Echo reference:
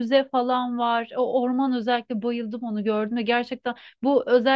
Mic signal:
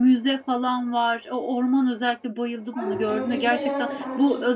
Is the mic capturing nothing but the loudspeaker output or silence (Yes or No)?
No